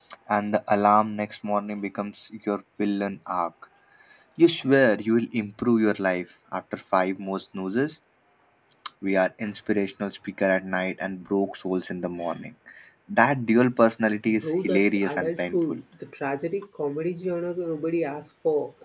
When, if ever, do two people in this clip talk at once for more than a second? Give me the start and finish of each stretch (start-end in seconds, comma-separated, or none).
14.3-15.8